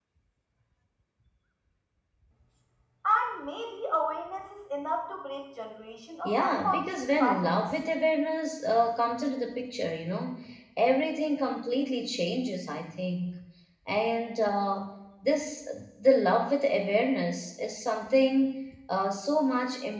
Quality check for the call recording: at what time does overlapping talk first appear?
6.2 s

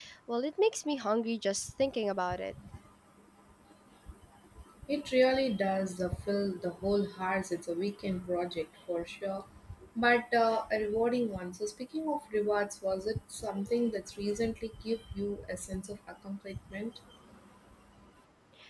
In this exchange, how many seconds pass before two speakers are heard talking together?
none

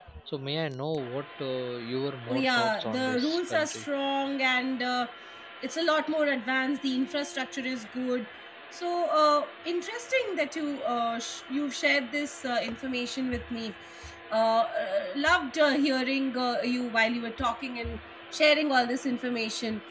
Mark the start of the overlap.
2.3 s

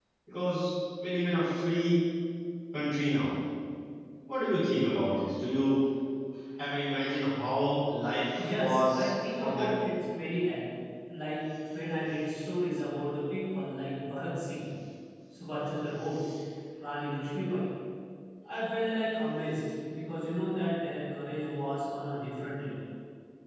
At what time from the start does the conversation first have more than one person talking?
8.4 s

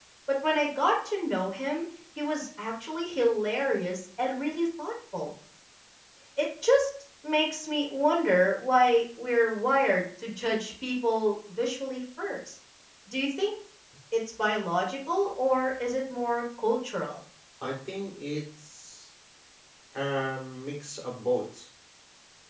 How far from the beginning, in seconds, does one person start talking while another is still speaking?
none

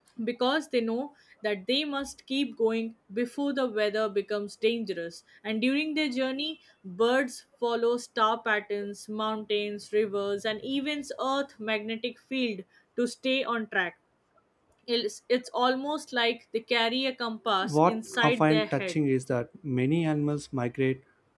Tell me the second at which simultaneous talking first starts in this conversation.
17.6 s

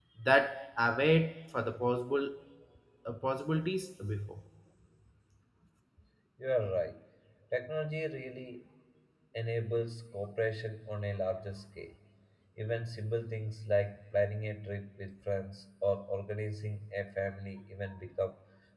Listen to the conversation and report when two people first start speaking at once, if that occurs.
none

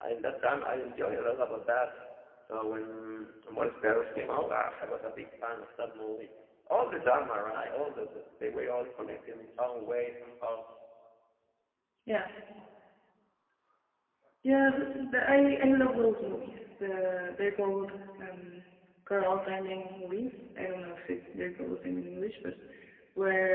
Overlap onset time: none

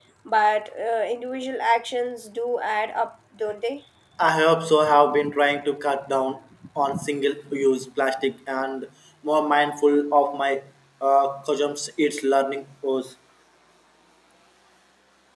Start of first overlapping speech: none

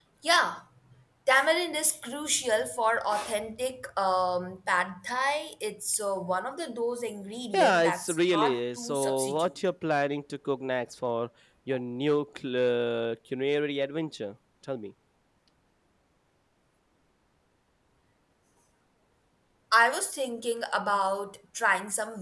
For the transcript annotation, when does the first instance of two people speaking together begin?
7.5 s

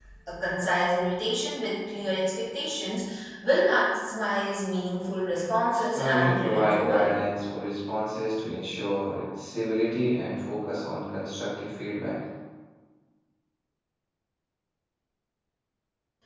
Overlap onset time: 6.0 s

